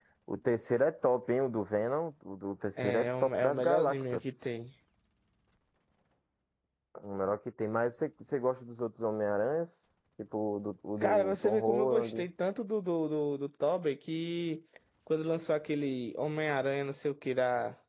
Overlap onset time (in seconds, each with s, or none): 2.8 s